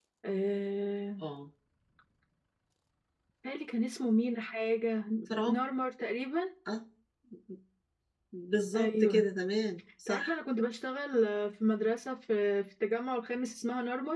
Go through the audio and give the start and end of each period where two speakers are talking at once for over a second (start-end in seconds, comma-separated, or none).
none